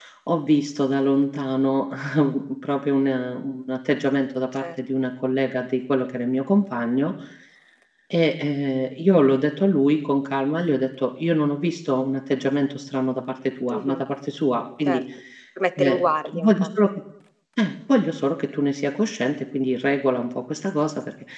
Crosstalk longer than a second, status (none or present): none